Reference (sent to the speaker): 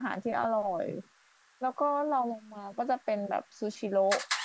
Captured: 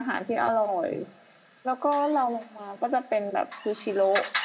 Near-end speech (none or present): none